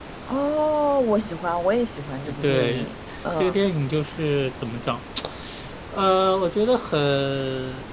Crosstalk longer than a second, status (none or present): none